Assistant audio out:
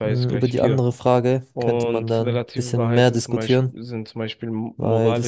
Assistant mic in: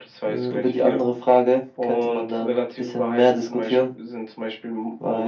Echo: present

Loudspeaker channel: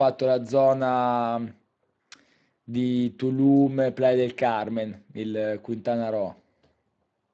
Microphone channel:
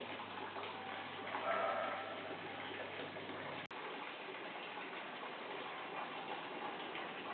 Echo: none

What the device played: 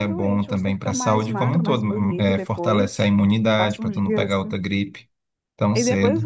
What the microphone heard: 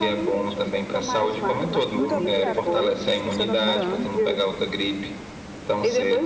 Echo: present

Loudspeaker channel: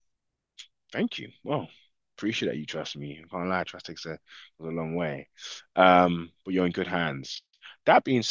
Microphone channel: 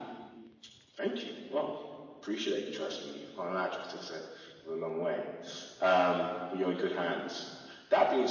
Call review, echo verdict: present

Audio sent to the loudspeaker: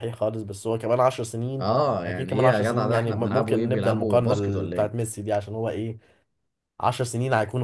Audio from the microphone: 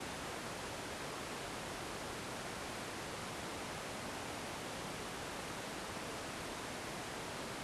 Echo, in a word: none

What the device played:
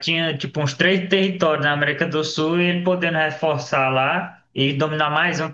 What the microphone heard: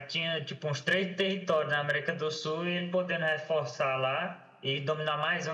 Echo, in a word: present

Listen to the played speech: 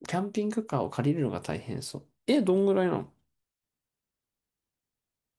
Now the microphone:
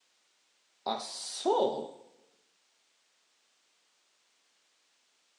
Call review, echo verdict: none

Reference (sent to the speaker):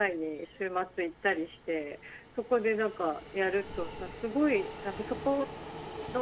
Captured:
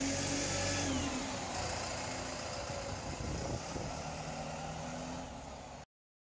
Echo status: none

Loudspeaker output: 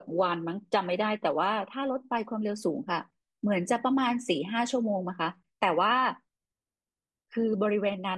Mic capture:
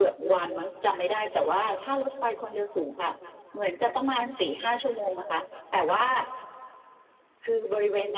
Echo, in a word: present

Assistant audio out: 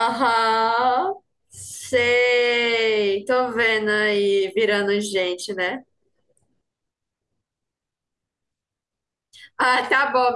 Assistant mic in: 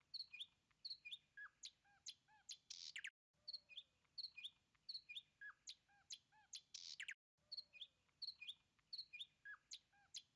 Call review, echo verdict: none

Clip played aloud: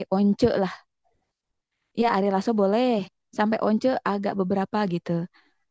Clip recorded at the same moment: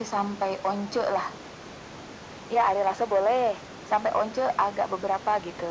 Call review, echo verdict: present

